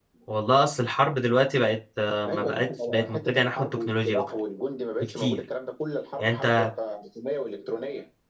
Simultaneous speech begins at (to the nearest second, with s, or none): 2 s